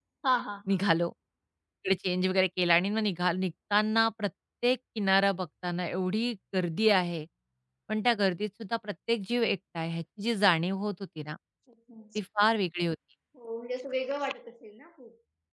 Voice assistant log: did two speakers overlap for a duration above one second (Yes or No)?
No